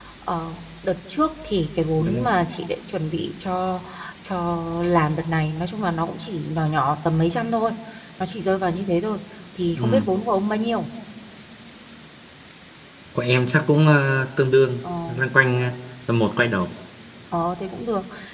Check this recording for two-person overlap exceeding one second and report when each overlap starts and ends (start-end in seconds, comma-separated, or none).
none